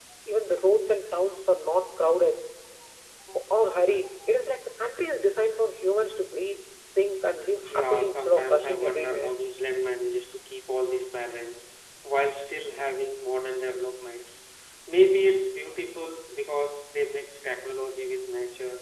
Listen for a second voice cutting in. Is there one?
Yes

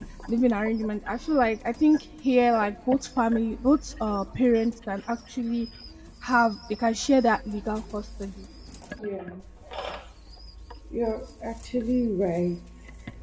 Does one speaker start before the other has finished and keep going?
No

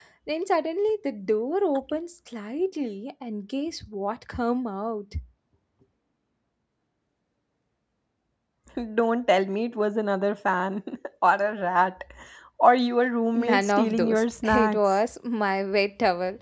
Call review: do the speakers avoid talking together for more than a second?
No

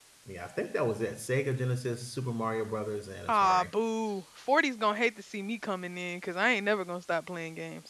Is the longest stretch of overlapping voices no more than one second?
Yes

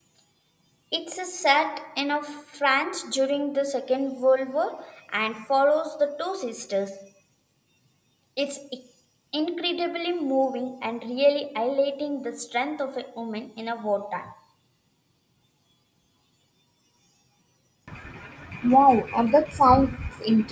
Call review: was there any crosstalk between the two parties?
No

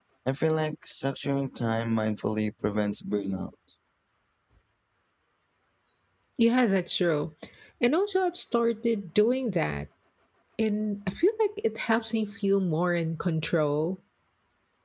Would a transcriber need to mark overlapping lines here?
No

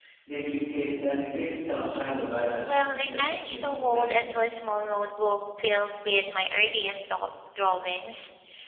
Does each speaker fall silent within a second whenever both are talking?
No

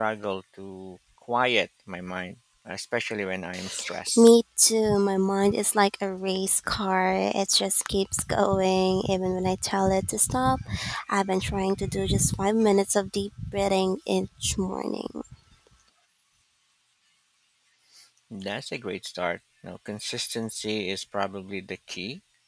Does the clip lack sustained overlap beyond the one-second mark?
Yes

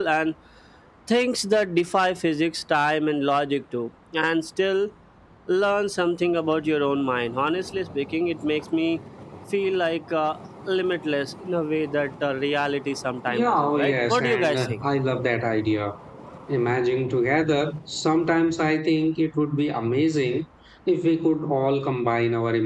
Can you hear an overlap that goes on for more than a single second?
Yes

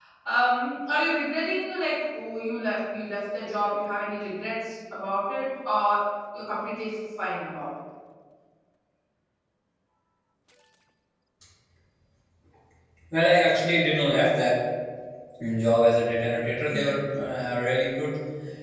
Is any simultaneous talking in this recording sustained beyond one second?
No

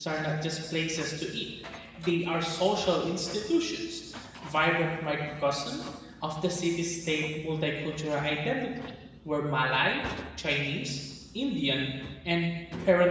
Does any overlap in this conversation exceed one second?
No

